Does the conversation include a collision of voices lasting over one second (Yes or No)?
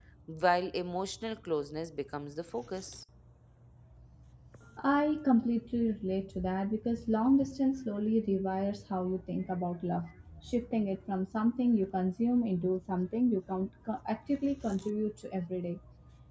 No